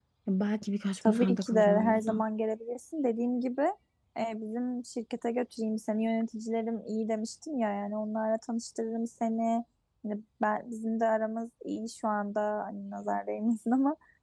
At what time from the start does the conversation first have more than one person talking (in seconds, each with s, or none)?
1.0 s